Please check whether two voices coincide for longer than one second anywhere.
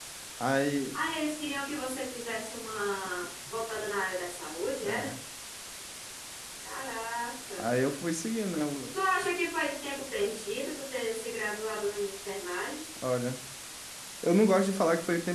No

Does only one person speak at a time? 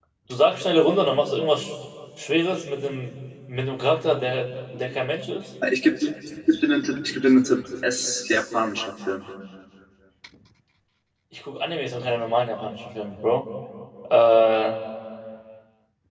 Yes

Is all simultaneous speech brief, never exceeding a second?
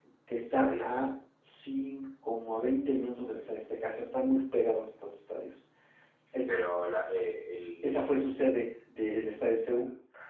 Yes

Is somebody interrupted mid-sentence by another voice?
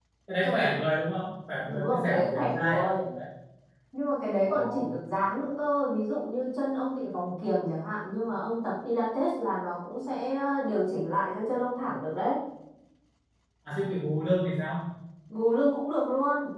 Yes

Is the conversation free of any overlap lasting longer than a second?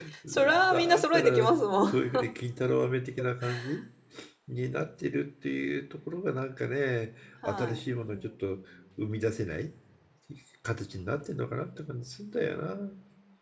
No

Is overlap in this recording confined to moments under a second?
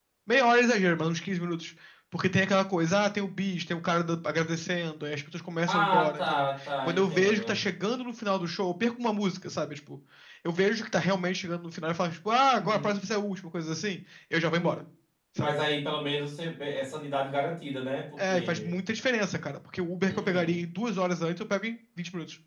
No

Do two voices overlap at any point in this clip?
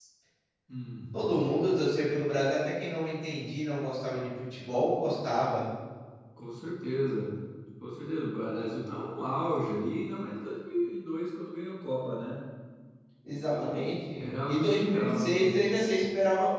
Yes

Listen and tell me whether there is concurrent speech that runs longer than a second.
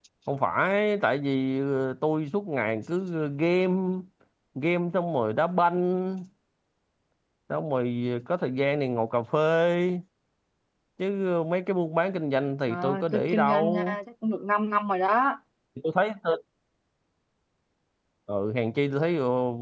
Yes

